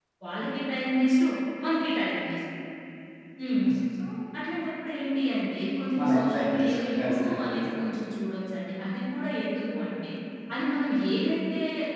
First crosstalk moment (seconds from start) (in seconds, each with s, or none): 5.9 s